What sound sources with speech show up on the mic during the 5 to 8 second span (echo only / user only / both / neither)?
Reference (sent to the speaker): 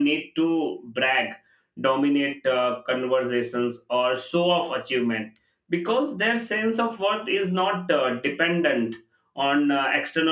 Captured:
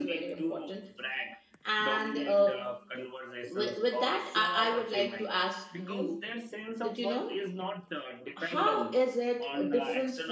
both